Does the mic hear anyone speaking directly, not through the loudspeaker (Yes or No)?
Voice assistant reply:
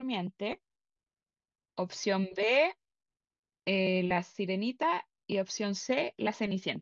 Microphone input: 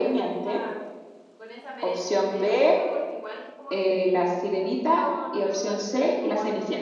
Yes